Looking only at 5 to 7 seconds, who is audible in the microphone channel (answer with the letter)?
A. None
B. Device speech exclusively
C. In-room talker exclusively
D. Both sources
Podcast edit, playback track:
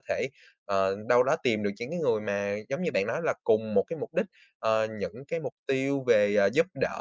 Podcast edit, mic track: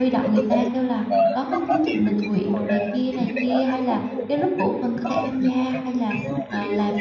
D